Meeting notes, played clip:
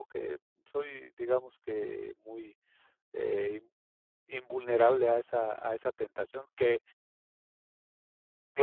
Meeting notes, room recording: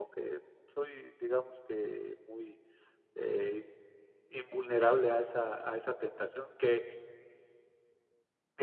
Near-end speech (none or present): none